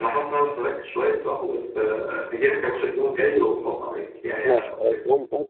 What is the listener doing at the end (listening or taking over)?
taking over